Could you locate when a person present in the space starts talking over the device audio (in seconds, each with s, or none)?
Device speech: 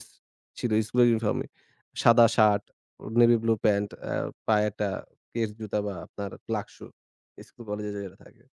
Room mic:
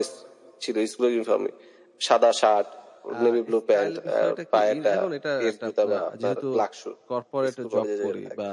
3.1 s